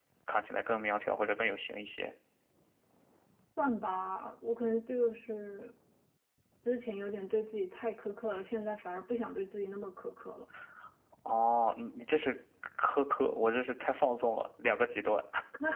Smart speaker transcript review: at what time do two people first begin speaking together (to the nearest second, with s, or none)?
none